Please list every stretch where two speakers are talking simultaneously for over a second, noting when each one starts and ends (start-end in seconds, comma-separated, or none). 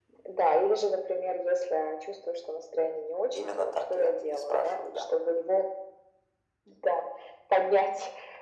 3.4-5.0